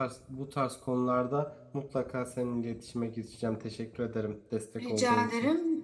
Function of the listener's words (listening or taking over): taking over